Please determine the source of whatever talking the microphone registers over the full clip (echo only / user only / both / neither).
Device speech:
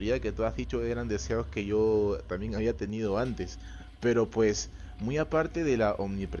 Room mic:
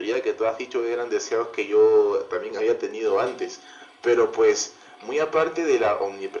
echo only